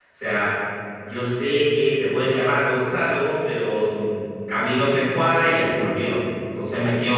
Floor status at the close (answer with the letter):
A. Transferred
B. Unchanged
B